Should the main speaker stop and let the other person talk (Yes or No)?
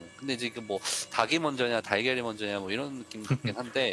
Yes